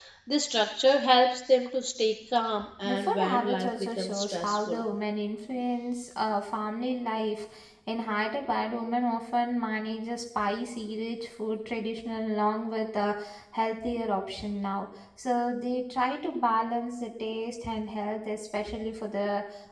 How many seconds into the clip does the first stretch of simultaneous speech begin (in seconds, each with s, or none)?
2.8 s